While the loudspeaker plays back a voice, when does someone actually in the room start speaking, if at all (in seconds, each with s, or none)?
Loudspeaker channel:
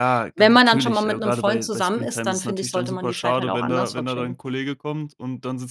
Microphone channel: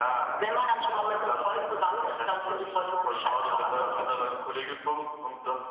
none